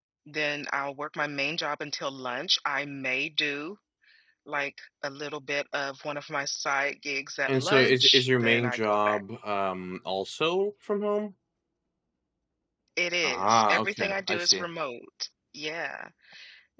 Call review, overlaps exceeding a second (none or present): present